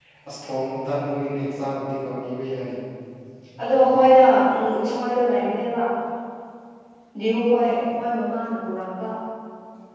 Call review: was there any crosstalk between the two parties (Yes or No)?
No